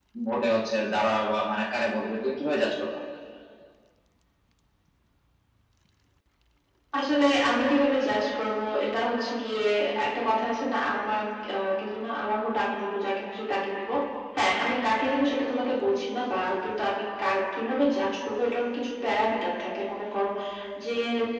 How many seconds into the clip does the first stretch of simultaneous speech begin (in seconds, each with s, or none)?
none